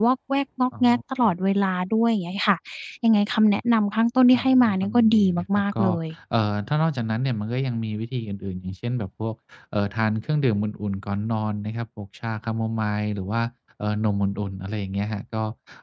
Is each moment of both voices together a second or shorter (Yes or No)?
No